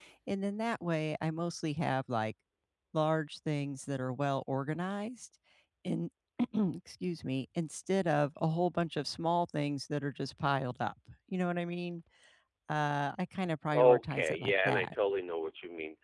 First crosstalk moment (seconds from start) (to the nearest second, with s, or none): 14 s